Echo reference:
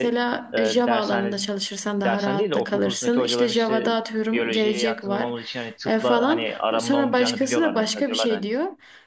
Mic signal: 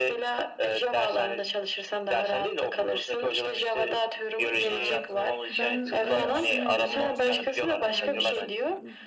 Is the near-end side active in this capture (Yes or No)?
Yes